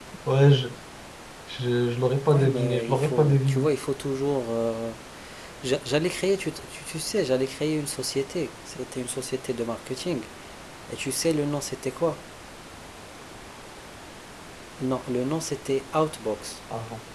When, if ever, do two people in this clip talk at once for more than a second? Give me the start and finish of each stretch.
2.2-3.7

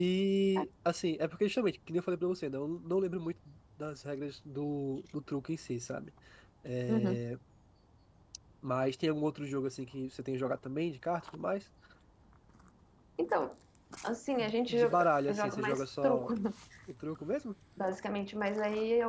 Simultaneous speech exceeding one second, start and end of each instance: 14.4-16.3

